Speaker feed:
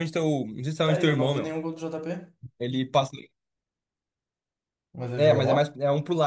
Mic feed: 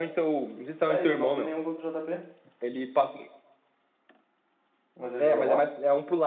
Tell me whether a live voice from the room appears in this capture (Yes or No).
No